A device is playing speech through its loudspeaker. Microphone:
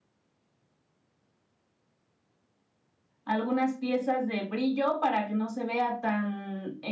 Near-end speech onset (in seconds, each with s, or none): 3.2 s